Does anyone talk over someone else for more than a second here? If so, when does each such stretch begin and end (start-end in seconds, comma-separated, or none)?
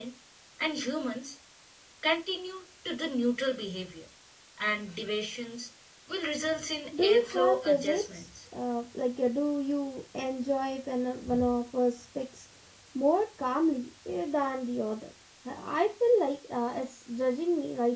7.0-8.2